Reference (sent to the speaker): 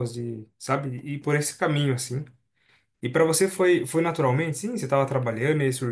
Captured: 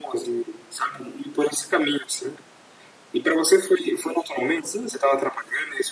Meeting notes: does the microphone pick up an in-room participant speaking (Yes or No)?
No